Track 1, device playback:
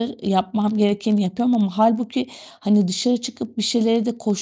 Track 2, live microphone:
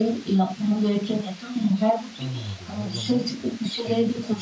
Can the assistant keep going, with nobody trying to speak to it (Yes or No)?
No